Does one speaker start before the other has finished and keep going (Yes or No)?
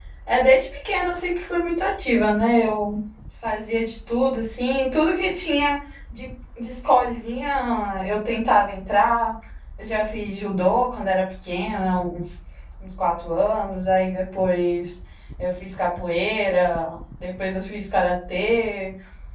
No